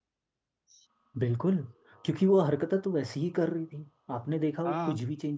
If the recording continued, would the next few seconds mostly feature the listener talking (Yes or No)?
No